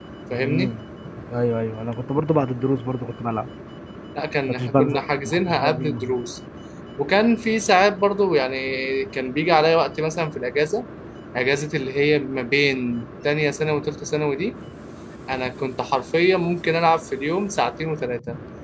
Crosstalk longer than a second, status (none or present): present